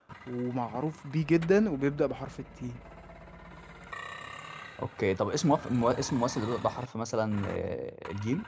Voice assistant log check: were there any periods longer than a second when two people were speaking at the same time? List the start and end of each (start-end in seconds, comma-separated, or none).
none